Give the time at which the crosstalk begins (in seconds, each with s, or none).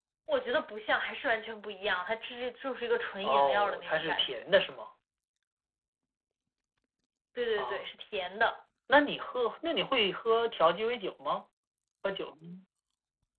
3.2 s